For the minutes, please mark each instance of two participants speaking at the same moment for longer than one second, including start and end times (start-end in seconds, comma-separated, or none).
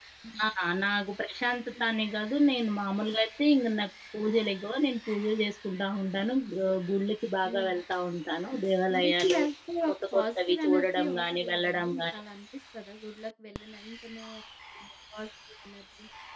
9.9-12.2